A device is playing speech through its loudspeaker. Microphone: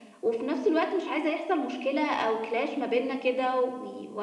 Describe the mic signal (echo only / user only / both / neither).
echo only